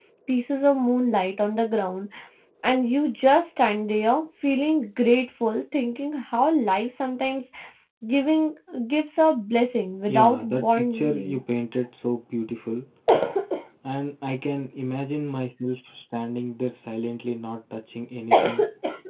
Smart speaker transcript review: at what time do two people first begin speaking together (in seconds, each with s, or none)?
10.1 s